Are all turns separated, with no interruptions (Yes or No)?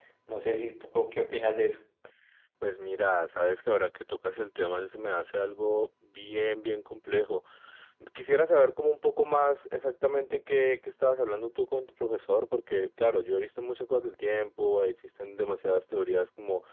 Yes